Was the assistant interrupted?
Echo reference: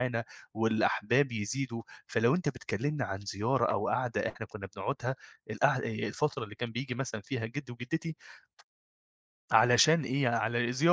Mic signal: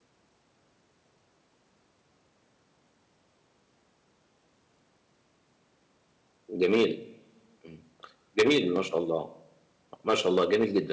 Yes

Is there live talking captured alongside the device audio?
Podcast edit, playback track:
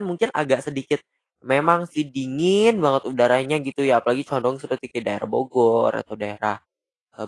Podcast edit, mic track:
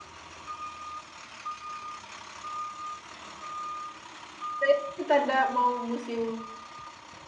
Yes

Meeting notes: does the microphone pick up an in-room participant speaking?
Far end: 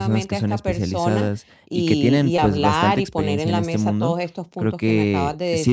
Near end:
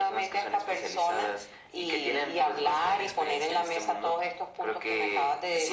No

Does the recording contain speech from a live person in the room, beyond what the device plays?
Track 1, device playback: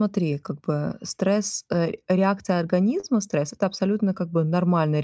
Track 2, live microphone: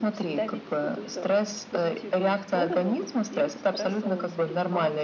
Yes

